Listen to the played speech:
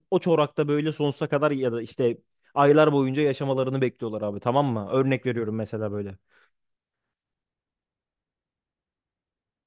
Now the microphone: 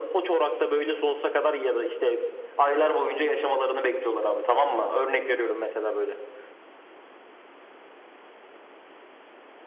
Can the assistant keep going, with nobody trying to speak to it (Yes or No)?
Yes